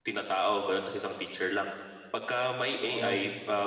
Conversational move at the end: listening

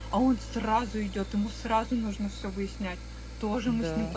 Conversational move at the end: listening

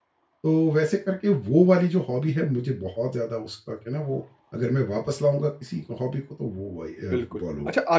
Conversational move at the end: taking over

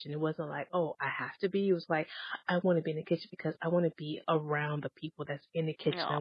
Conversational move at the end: listening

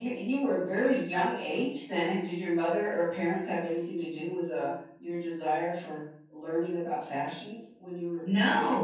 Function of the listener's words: taking over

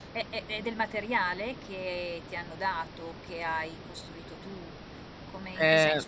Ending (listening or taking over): listening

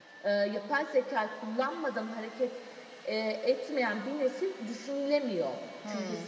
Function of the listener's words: taking over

